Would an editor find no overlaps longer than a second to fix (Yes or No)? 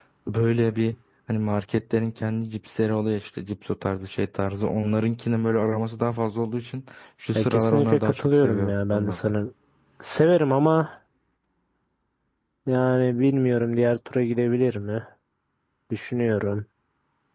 No